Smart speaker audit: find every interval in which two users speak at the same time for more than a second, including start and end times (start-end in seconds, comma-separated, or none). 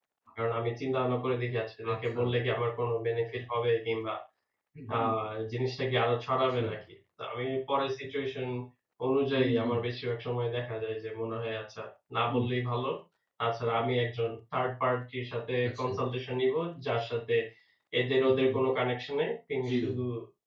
none